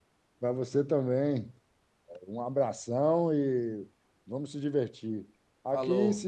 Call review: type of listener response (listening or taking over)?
listening